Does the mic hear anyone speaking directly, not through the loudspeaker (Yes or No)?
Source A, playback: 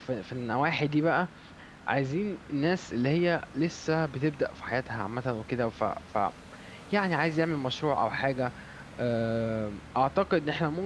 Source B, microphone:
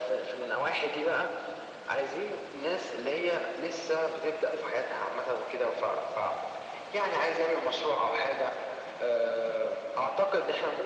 No